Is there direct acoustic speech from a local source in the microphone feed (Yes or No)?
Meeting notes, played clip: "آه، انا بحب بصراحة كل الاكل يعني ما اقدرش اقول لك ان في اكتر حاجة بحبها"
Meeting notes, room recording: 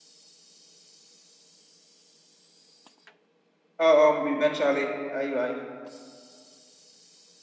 Yes